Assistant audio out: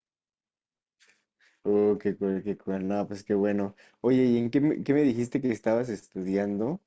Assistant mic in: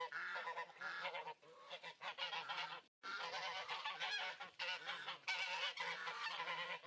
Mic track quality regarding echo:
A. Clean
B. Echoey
A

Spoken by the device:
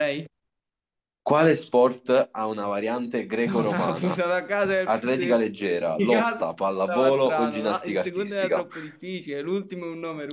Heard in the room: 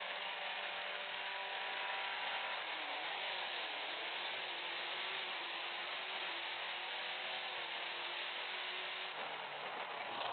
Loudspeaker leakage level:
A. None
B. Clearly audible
A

